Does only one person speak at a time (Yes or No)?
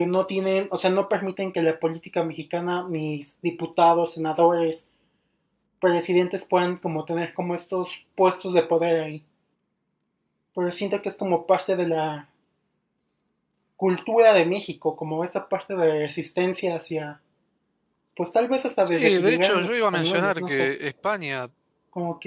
No